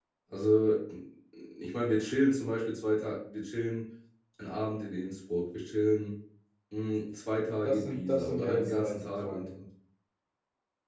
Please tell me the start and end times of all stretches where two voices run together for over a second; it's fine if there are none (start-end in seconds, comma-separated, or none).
7.6-9.5